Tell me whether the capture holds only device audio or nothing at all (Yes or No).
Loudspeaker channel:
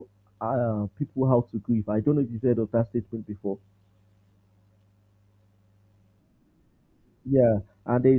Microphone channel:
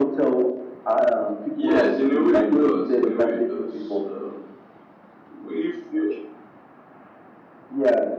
No